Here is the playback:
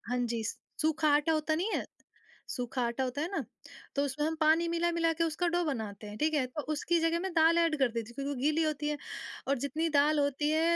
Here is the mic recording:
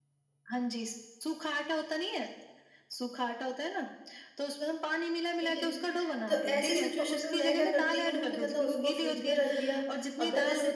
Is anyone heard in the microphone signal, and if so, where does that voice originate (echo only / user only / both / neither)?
both